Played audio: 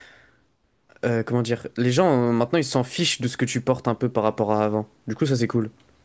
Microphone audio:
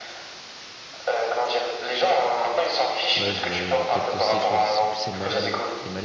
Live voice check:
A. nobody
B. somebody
B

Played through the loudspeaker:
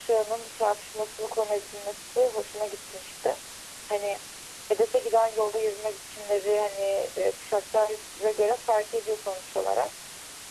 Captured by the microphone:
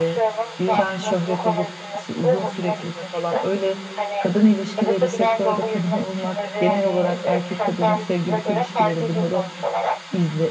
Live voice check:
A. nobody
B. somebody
B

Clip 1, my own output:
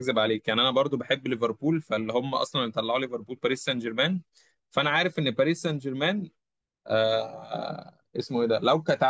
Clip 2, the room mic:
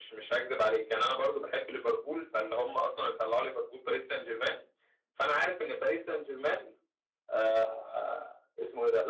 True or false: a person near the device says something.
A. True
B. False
B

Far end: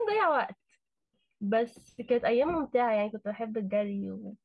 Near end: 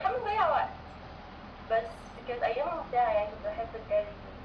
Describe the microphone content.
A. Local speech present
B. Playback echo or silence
B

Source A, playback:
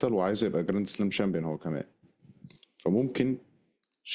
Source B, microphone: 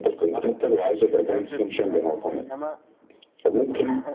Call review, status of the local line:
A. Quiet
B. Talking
B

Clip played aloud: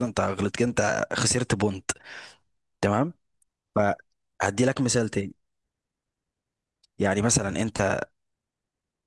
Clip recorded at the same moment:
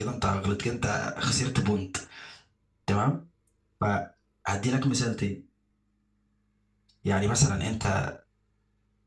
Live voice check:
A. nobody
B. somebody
A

